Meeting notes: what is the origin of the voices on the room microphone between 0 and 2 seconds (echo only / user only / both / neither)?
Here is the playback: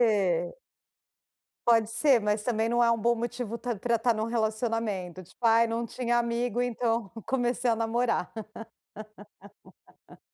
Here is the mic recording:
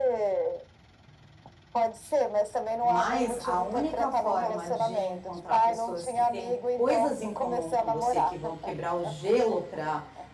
echo only